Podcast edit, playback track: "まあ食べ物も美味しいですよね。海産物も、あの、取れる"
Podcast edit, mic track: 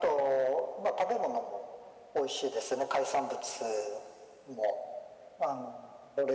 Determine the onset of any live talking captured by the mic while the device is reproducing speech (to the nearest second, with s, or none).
none